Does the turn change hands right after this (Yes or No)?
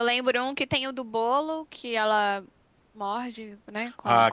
Yes